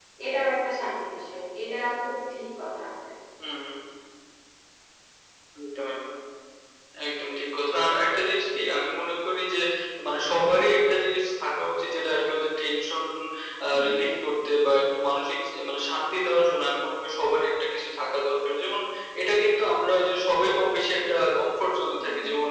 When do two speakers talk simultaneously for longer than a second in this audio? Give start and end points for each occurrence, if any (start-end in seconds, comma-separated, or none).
none